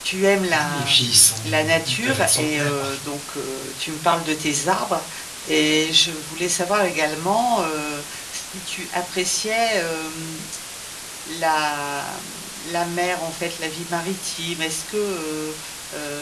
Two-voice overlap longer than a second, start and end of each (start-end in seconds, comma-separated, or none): 0.6-3.0